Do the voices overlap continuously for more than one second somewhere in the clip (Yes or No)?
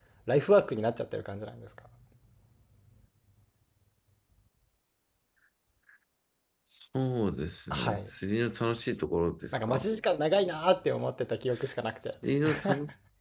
No